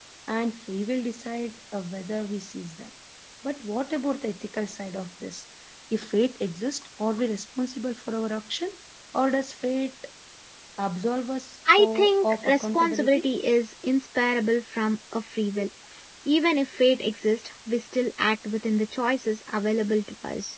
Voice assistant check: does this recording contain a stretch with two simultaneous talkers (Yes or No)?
Yes